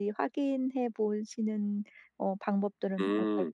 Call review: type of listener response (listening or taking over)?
taking over